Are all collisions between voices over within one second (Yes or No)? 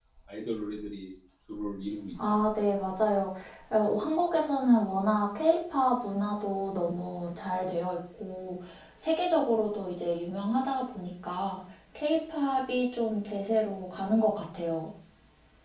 Yes